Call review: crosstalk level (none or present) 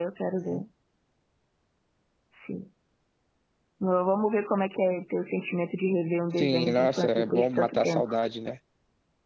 present